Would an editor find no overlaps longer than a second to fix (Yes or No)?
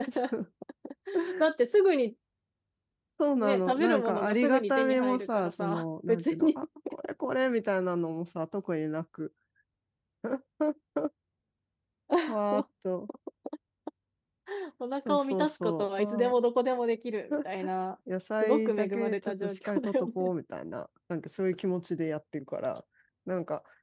No